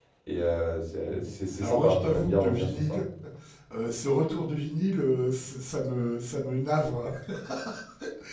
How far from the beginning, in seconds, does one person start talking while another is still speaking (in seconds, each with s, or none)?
1.6 s